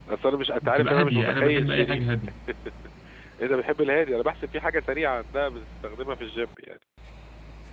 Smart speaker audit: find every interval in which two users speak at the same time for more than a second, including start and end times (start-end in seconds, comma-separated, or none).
0.6-2.0